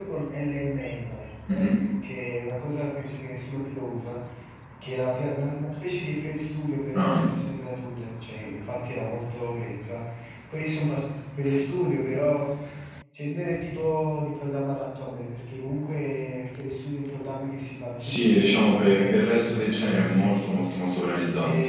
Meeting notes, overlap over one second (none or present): present